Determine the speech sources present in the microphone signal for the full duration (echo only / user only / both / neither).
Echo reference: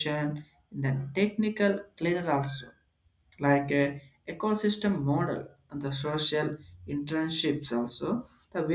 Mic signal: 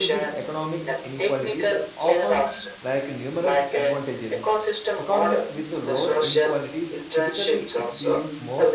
both